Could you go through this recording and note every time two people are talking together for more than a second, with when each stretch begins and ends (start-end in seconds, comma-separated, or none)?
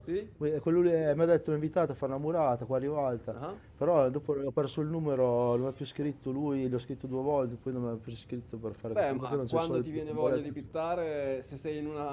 8.9-10.4